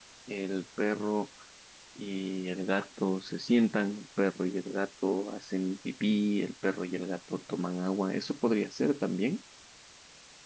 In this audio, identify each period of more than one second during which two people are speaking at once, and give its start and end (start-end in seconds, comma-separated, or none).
none